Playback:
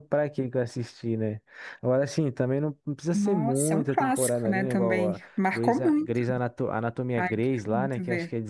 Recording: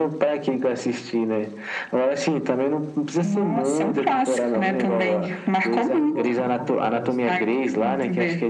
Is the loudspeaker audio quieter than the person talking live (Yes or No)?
No